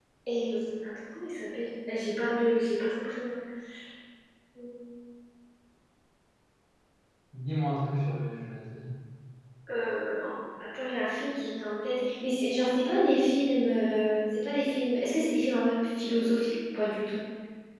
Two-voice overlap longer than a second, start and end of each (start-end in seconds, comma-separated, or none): none